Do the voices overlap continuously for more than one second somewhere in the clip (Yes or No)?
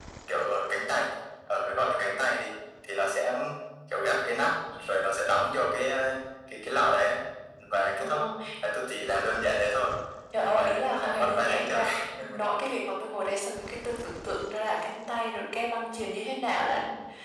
Yes